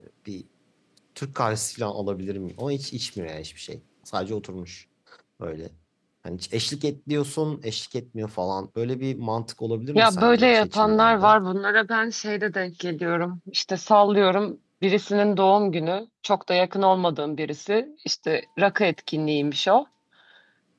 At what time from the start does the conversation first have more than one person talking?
9.9 s

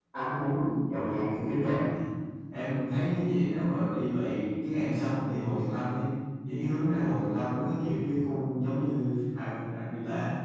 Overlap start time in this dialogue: none

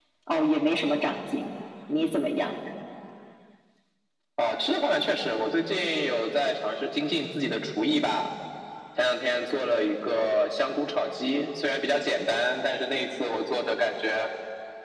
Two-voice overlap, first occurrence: none

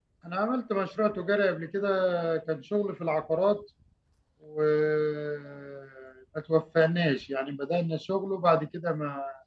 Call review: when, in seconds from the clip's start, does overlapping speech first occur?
none

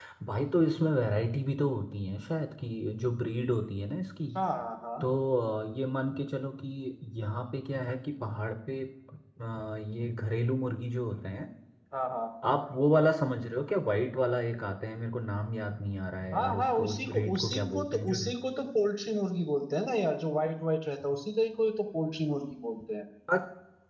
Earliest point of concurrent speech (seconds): 16.3 s

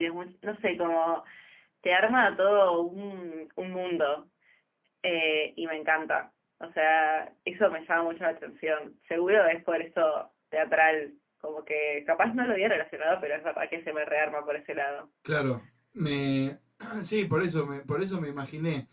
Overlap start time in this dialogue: none

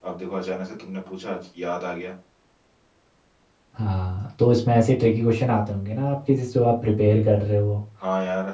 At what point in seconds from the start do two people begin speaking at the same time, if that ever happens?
none

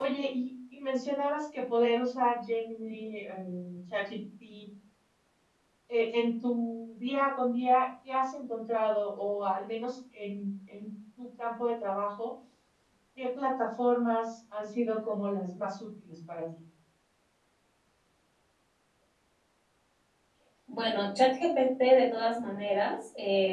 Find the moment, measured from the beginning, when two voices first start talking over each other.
none

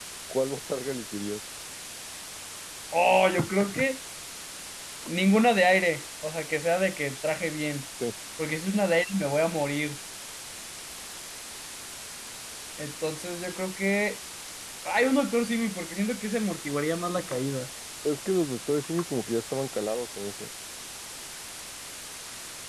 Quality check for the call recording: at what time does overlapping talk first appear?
none

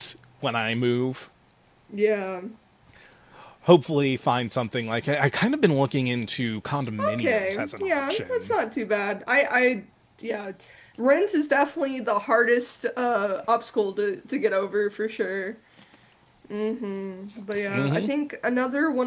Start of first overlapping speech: 7.2 s

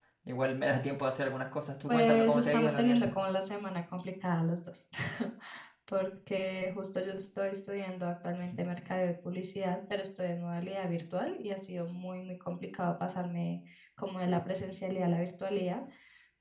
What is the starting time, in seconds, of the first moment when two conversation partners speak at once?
1.9 s

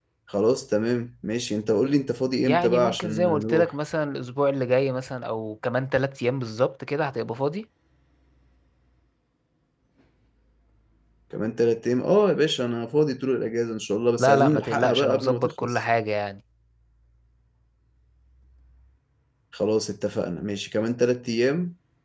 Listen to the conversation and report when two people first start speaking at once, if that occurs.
2.4 s

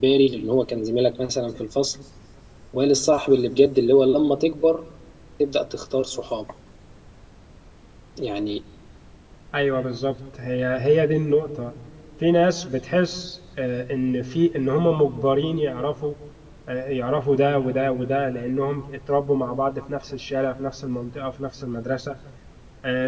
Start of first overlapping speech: none

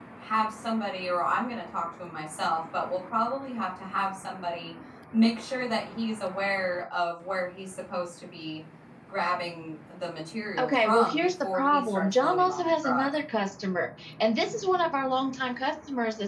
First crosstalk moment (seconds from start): 10.6 s

